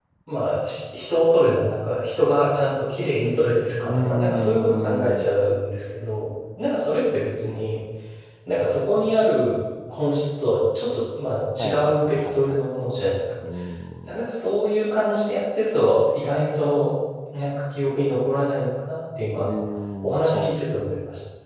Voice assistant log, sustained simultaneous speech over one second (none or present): present